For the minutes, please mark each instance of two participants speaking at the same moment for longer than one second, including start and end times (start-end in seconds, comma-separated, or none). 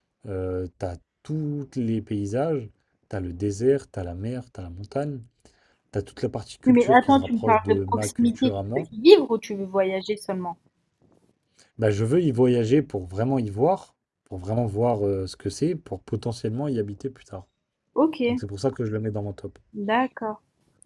6.7-8.8